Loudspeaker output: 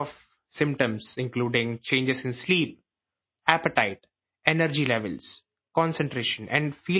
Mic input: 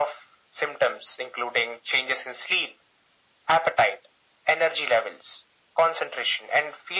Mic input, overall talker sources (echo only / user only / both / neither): echo only